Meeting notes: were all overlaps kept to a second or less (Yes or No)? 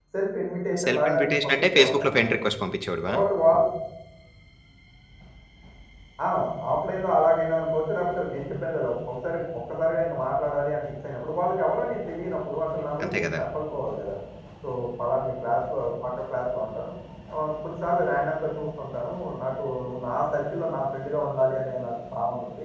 No